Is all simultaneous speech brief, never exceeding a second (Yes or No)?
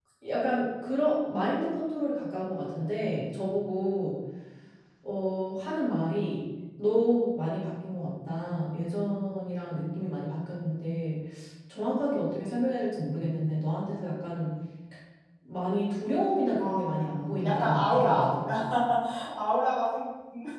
No